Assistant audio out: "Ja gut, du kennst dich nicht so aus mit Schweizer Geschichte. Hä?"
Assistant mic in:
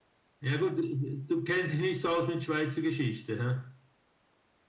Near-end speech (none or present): none